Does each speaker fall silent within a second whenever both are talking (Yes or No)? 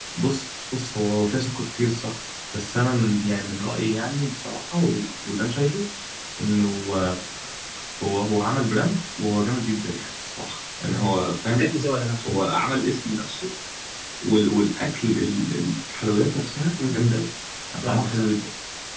Yes